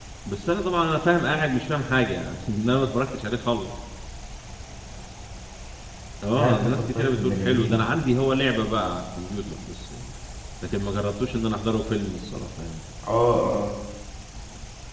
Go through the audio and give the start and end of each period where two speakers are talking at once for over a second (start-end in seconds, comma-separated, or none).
6.4-7.8